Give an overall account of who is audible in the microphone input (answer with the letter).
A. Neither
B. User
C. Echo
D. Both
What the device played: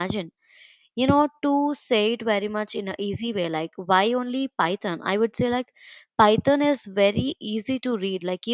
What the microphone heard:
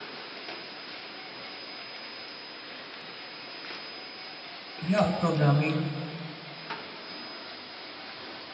B